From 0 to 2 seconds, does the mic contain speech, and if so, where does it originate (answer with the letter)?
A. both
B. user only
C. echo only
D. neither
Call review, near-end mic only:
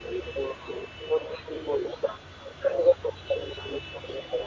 C